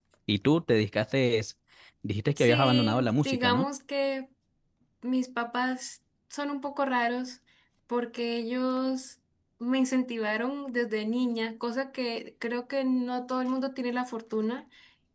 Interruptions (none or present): present